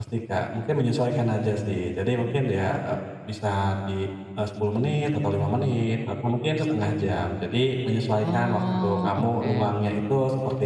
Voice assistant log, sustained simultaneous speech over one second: present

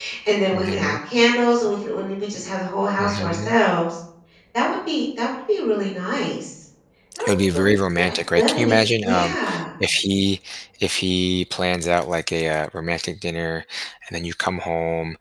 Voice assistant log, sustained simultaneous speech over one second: present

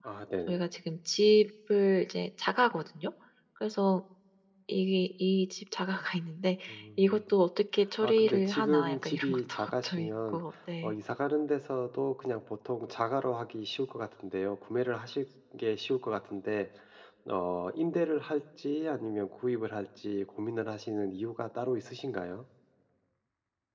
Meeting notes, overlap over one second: present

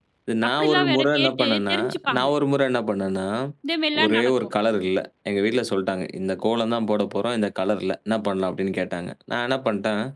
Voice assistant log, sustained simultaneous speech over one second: present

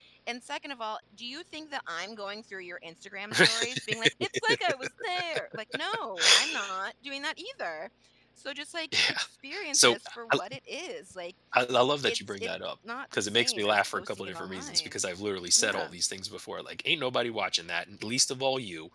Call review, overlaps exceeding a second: present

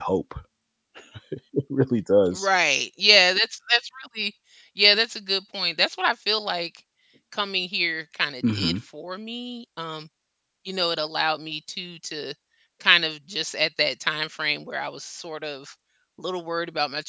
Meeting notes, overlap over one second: none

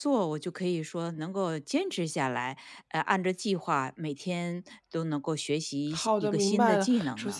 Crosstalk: present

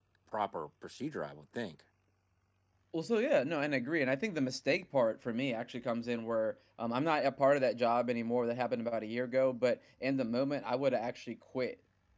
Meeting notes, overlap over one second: none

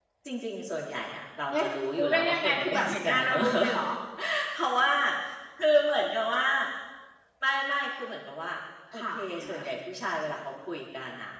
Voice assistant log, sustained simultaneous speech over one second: present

